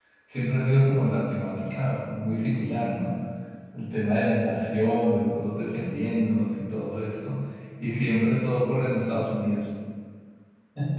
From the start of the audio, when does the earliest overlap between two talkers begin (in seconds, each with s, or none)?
none